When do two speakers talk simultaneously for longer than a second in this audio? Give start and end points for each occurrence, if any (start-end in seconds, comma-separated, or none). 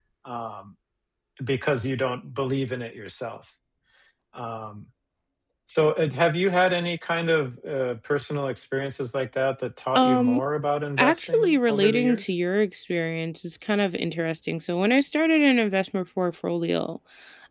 11.0-12.3